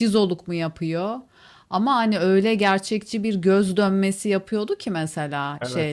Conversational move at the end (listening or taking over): listening